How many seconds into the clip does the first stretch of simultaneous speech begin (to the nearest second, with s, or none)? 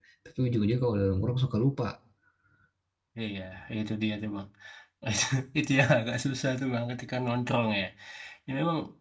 none